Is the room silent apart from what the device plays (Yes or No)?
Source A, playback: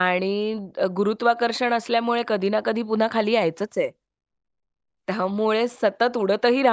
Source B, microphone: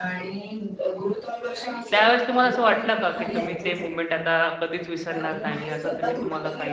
No